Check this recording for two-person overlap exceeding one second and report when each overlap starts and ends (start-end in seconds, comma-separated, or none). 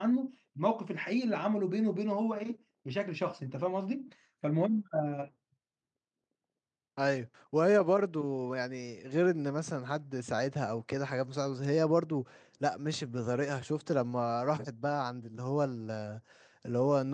none